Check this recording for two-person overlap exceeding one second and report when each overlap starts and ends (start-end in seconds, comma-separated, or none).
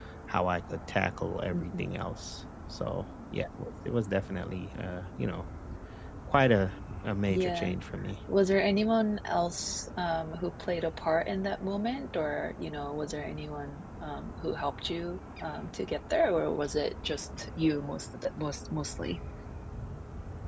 none